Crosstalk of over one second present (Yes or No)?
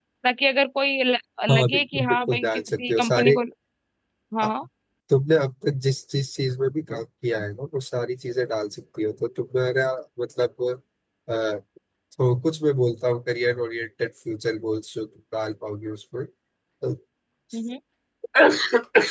Yes